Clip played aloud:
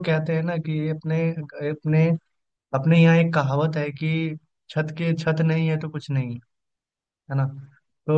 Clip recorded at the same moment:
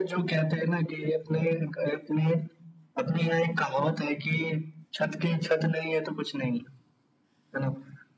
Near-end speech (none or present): none